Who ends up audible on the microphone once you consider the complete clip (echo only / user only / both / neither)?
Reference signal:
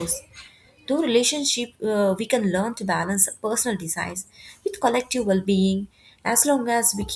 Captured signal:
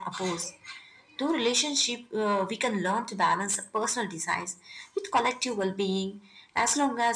echo only